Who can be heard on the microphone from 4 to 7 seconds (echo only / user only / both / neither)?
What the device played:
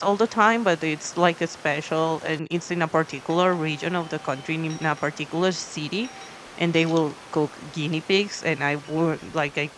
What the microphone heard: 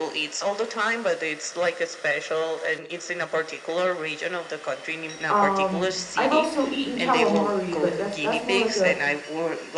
both